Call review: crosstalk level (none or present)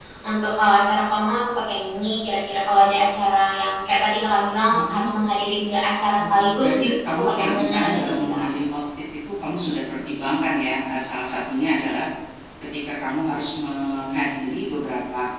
present